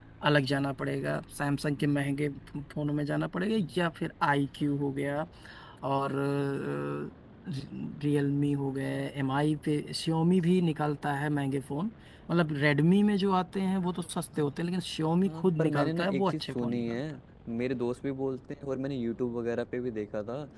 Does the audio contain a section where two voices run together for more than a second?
Yes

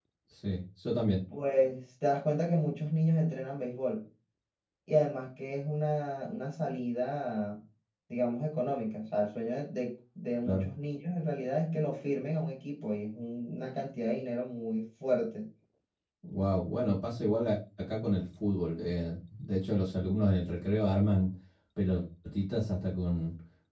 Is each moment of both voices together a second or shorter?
Yes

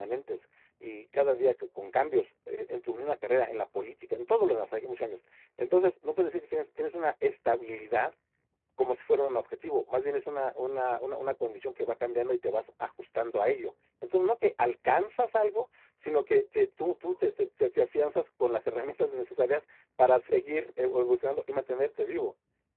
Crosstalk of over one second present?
No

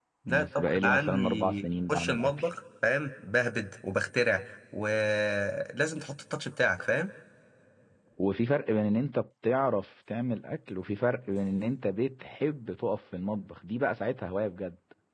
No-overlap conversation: No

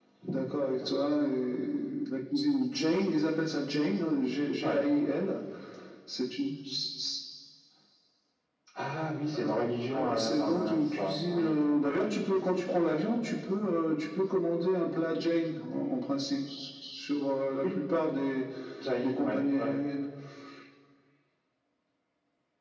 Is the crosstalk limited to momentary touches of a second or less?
No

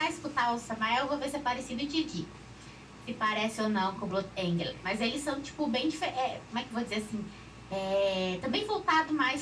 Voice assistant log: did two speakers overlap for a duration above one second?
No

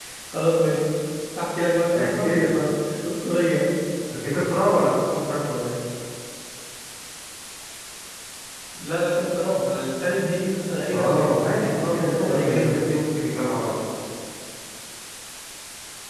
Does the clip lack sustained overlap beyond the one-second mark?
No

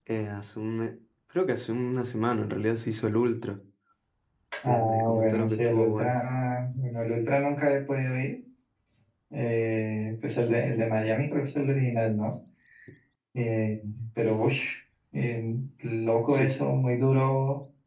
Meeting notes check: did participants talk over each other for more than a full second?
Yes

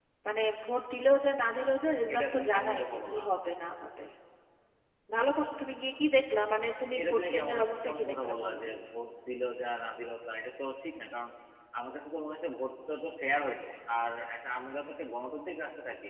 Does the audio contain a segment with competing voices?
Yes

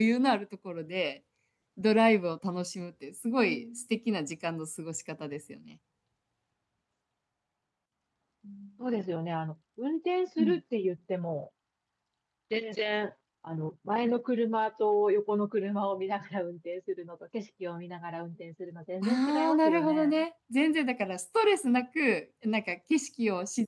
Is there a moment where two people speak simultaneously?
Yes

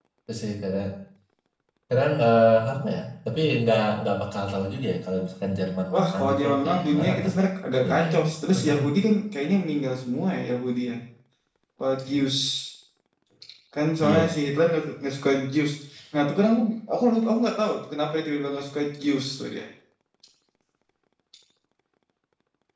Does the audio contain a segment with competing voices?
Yes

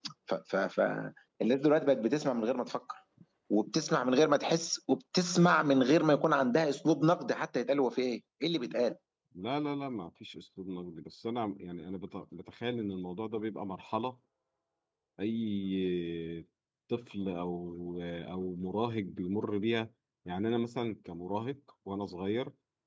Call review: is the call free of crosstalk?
Yes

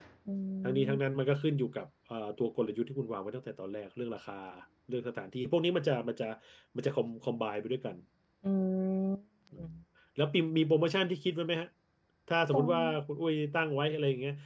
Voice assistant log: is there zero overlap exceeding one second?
Yes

